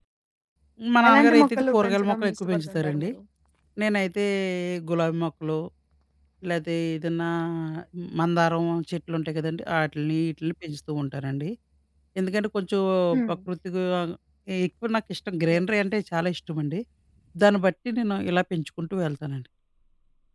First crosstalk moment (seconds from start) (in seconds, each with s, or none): 1.1 s